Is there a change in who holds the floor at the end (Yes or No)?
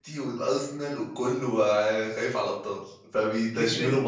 Yes